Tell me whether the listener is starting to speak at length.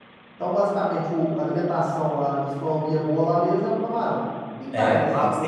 Yes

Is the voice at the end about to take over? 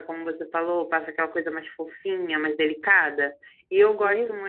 No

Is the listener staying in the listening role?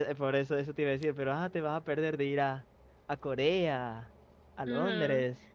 No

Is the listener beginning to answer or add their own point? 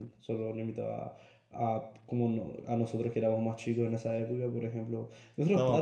No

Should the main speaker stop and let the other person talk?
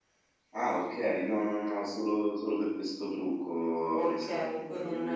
Yes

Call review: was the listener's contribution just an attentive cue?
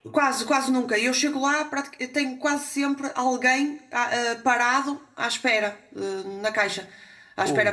No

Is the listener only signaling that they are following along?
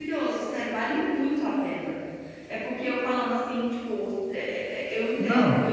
Yes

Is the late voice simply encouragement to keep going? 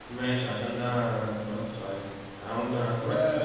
Yes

